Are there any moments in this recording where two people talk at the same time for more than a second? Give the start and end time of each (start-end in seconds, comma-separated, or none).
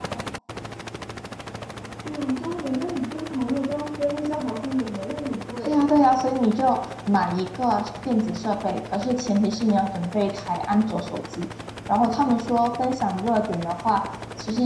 none